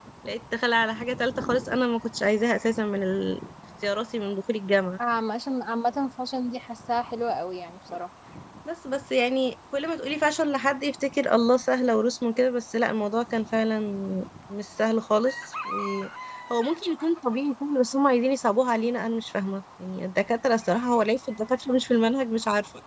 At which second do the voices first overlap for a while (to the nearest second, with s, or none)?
none